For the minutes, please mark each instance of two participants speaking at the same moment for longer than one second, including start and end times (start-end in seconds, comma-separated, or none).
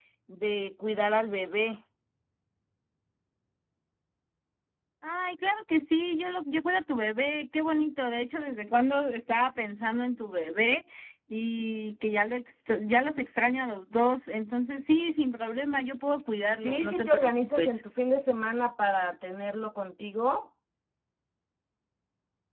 16.6-17.8